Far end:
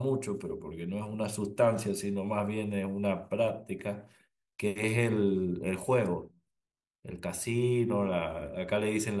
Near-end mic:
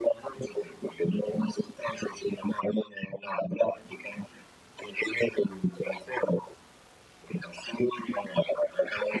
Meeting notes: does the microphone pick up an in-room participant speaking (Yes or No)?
No